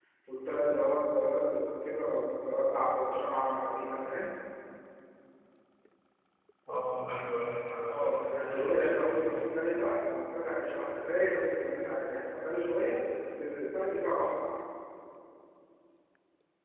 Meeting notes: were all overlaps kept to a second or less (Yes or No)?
No